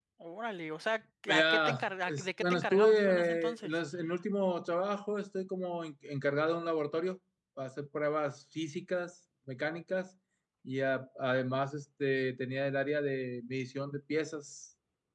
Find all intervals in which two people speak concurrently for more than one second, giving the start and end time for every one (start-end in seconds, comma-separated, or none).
1.3-3.8